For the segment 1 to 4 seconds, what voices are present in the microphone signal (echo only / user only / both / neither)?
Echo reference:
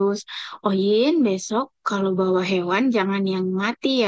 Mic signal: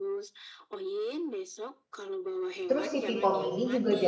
both